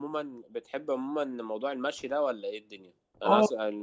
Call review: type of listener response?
listening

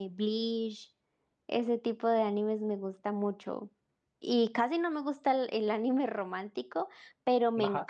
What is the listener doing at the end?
listening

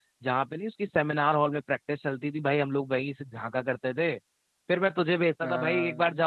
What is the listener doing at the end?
listening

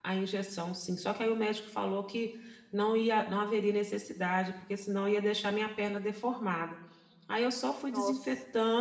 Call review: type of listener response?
listening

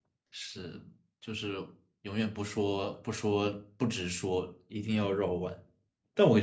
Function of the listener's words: listening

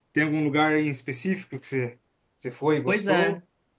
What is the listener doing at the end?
taking over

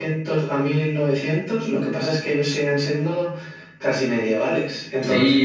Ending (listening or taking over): taking over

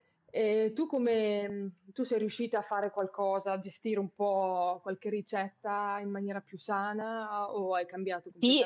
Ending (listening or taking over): taking over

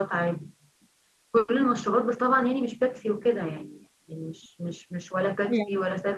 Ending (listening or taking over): listening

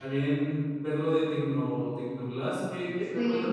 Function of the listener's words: taking over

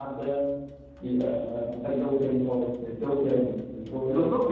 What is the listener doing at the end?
taking over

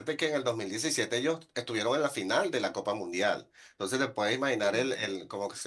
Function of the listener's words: listening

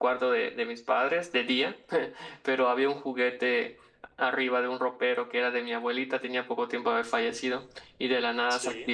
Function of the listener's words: listening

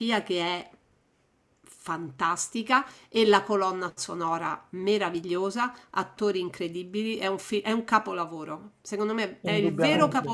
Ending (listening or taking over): listening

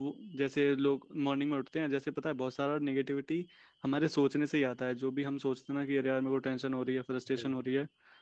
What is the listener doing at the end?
listening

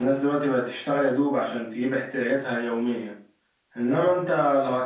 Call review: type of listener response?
listening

